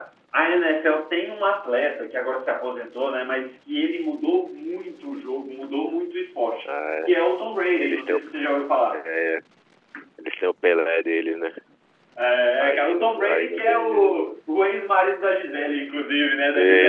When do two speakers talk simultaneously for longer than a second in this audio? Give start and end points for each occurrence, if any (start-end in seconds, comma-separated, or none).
12.6-14.1